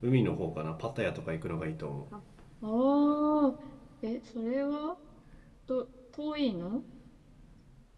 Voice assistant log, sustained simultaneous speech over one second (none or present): none